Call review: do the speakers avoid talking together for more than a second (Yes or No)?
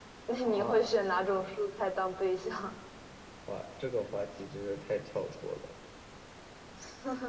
Yes